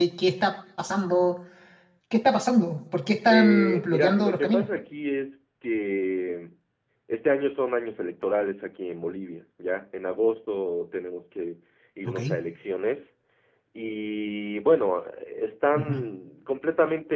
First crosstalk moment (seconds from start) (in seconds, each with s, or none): 3.3 s